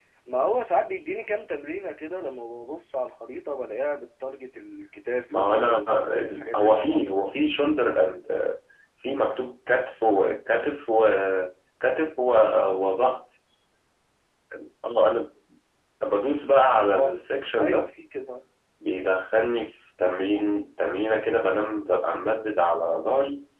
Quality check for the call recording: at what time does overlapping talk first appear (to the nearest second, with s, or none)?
5 s